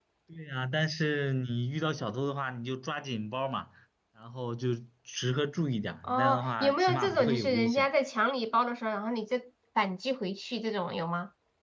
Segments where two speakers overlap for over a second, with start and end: 6.0-7.9

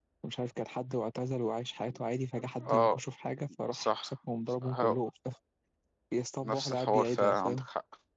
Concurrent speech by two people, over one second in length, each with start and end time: 6.4-7.7

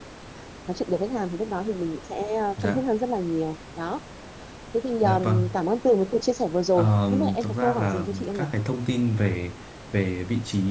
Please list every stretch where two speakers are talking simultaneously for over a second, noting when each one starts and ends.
6.7-8.4

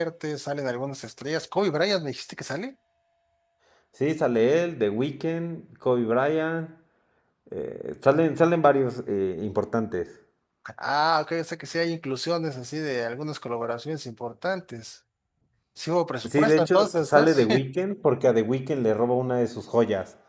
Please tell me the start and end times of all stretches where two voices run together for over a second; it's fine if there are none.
16.2-17.5

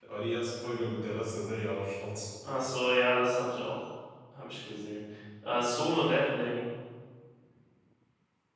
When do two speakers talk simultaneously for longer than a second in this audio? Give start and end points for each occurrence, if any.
none

